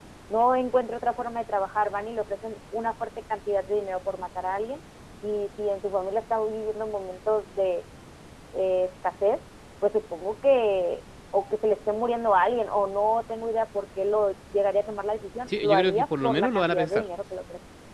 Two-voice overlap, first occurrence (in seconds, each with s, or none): 15.5 s